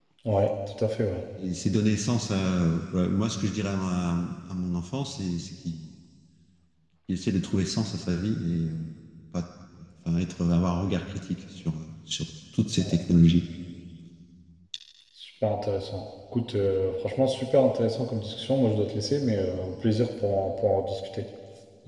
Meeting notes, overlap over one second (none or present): none